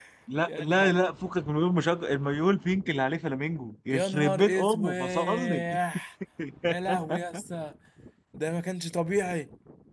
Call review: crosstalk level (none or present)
present